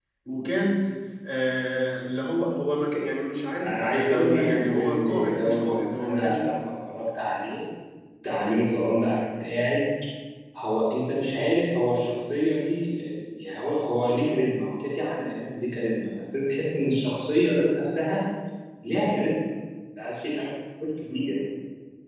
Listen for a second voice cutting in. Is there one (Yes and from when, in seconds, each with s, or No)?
Yes, from 3.6 s